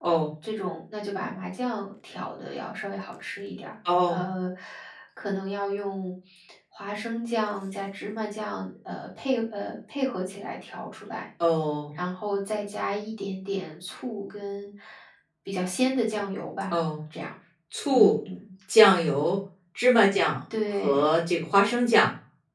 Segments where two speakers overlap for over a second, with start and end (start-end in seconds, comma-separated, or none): none